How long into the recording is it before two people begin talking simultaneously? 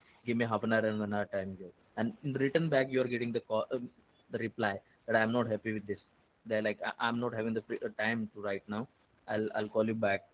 none

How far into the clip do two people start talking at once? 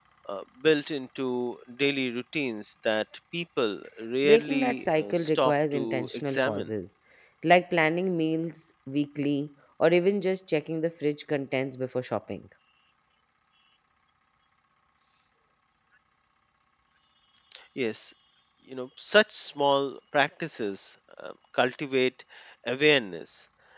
4 s

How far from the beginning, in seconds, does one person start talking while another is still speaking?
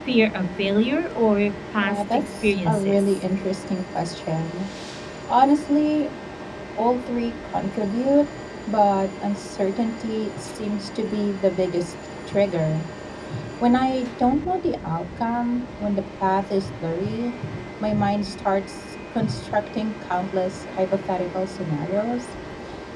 2 s

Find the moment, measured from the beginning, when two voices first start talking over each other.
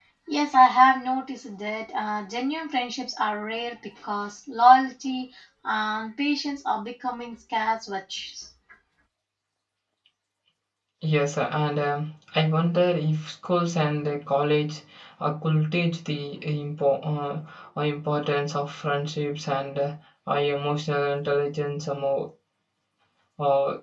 none

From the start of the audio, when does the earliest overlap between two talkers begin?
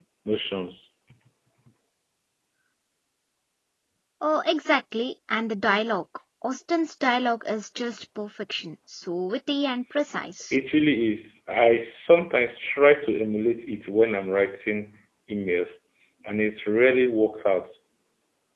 none

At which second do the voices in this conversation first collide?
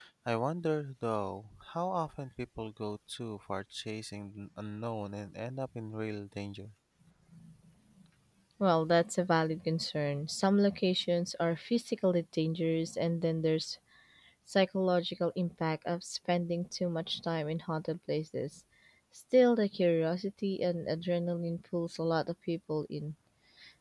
none

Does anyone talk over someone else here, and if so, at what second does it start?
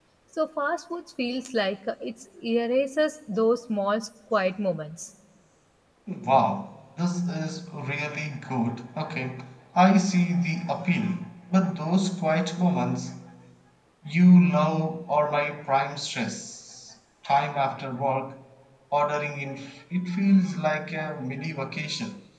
none

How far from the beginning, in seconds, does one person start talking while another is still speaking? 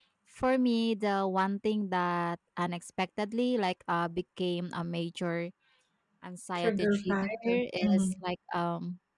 7 s

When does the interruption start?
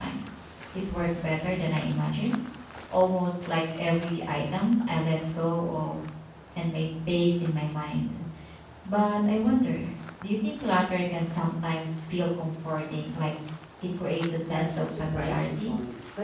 14 s

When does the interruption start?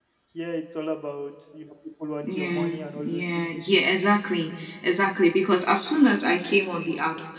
2 s

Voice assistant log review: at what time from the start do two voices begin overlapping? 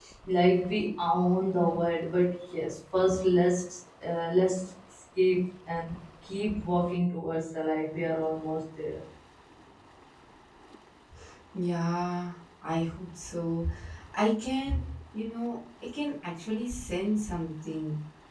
none

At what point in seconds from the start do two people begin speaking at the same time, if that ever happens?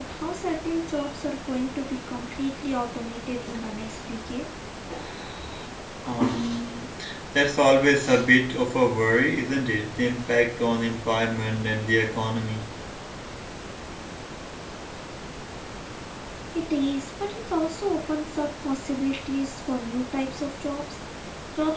none

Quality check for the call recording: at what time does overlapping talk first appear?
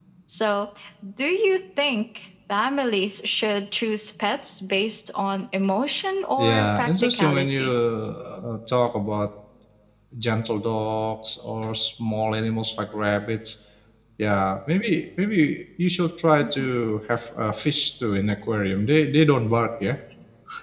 6 s

